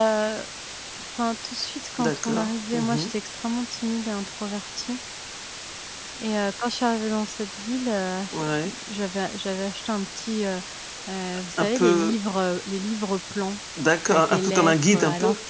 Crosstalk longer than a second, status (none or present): present